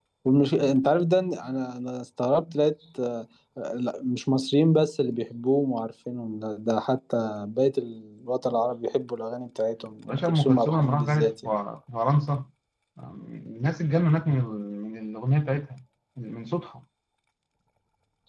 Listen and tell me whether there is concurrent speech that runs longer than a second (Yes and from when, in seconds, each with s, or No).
Yes, from 10.1 s